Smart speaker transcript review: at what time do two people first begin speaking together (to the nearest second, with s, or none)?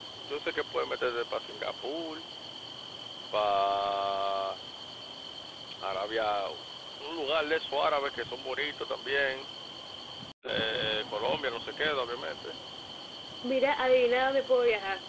none